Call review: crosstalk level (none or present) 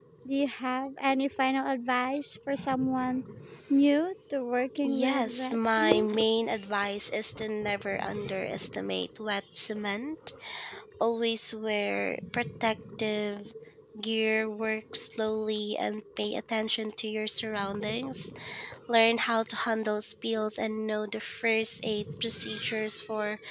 present